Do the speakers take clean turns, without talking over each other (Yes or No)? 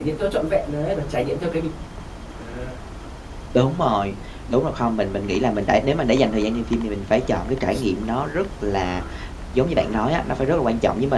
Yes